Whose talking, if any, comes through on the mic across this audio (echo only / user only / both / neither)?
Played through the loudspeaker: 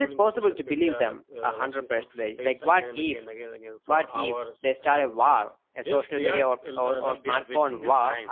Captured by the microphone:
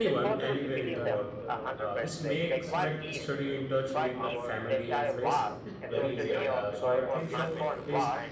both